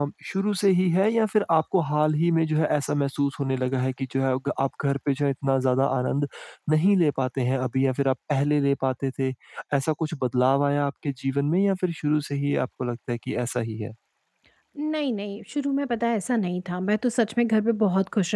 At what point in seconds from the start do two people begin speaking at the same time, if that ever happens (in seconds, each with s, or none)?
none